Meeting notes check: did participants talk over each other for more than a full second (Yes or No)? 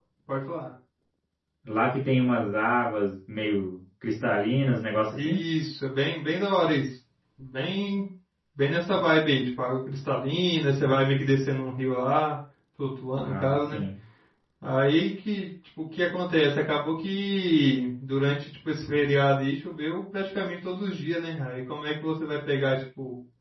No